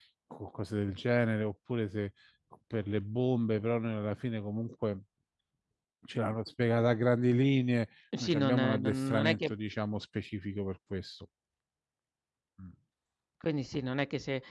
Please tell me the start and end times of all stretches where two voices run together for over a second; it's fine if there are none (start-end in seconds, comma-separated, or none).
8.2-9.4